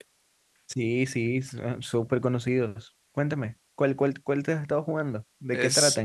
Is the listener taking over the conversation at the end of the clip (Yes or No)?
Yes